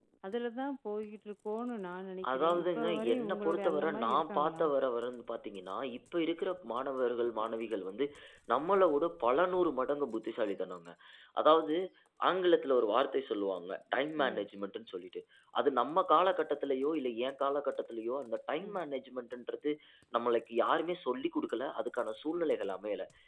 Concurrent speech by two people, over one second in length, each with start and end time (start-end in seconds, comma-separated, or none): 2.3-4.6